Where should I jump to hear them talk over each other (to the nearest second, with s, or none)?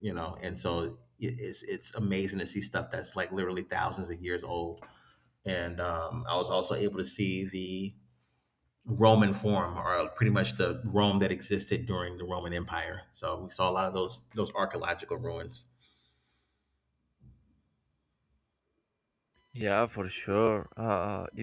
none